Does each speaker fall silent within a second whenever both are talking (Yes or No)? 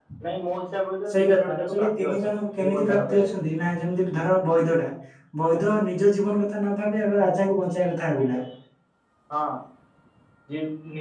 No